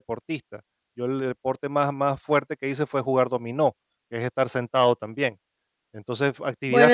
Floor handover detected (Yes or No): No